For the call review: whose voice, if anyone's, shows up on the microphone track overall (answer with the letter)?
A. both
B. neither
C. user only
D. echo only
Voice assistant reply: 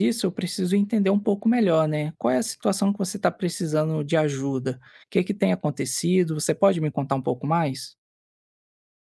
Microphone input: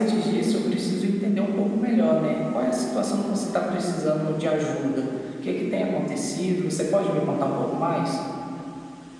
D